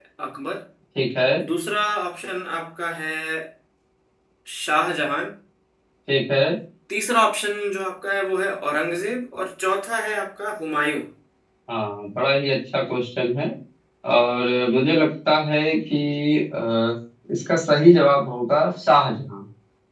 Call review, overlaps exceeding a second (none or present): none